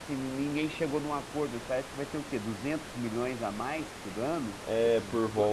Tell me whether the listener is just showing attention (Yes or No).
No